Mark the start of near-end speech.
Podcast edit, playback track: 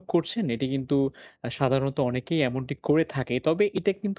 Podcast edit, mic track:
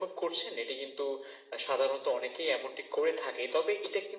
none

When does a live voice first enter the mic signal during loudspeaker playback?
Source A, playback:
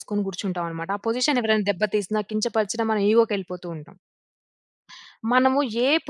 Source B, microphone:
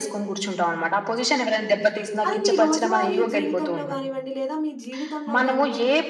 2.3 s

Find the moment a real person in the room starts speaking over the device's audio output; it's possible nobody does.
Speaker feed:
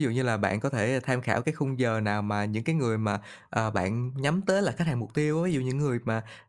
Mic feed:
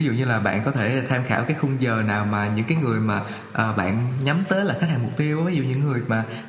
none

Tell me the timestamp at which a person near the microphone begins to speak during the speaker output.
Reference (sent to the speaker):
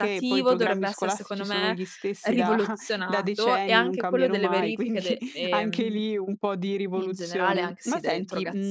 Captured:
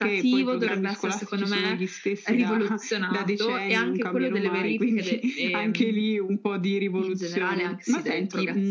none

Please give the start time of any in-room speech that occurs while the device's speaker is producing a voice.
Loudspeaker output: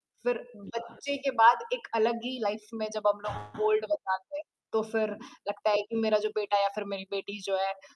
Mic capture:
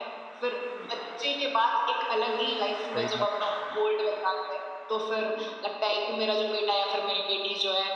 2.9 s

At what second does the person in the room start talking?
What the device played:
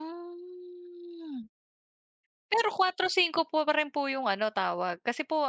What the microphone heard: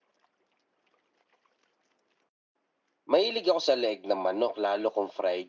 3.1 s

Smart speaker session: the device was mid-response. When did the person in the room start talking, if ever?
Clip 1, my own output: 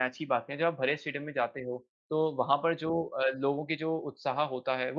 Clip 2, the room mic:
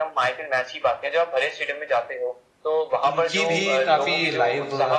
3.1 s

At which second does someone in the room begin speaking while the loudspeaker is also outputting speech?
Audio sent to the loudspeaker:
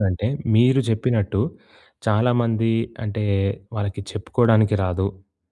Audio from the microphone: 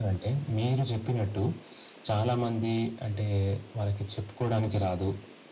none

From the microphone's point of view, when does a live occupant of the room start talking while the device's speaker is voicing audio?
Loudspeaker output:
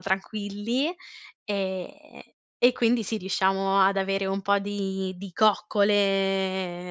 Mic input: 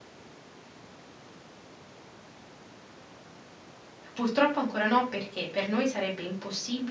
4.2 s

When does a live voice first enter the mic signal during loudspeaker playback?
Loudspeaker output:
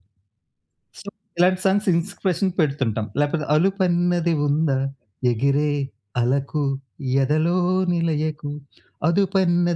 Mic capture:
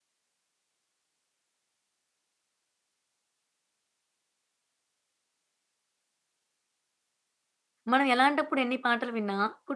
7.9 s

